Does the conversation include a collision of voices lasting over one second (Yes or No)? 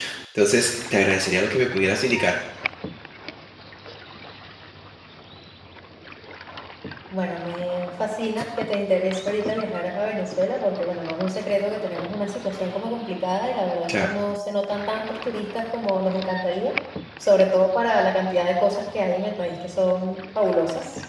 No